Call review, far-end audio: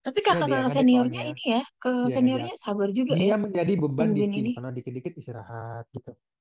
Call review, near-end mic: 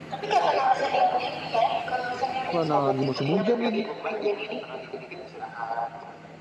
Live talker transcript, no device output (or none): Terus mana lagi musim hujan lagi,